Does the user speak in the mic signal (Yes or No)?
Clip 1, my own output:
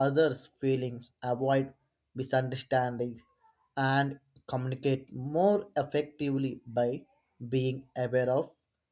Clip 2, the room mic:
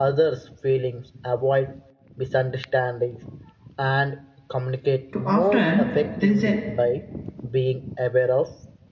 Yes